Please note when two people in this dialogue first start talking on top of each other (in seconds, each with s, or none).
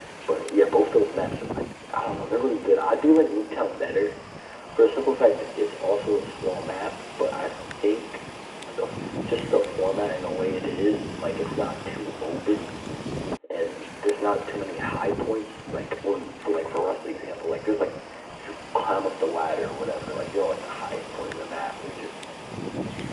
none